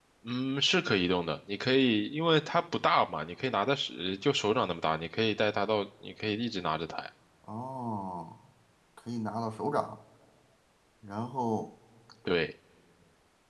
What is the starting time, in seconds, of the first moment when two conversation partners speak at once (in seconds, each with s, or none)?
none